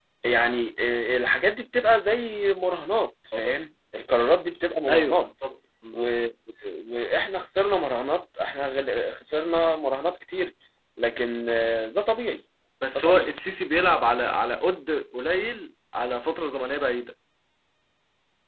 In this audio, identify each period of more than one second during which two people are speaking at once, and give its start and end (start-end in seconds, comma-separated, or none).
none